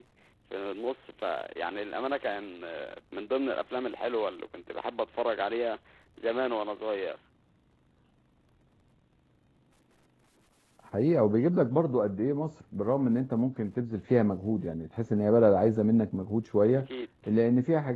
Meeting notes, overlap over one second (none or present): none